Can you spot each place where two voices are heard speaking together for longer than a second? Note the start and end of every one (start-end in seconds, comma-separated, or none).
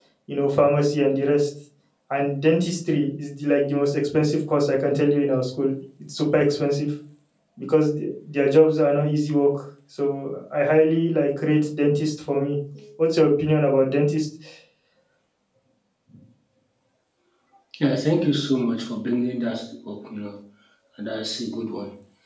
none